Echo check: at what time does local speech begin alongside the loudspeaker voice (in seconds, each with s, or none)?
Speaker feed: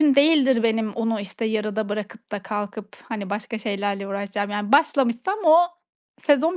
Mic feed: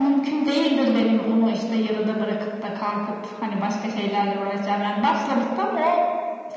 none